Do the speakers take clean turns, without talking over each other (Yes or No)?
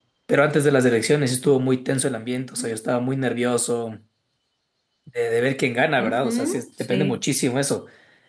No